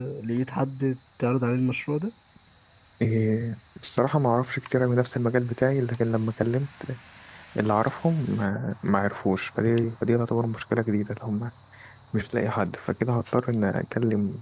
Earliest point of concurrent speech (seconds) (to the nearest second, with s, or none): none